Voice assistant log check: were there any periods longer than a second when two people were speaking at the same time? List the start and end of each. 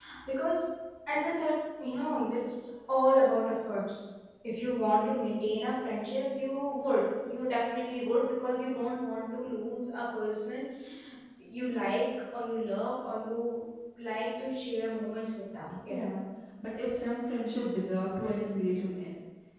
none

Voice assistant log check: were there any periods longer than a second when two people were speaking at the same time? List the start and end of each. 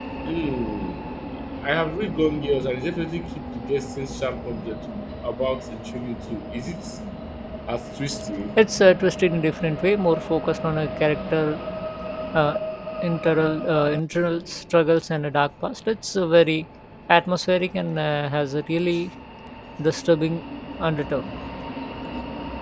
none

